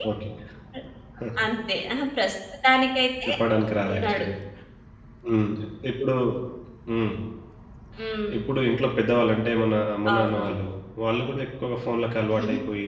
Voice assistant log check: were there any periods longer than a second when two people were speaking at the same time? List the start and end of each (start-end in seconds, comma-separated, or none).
none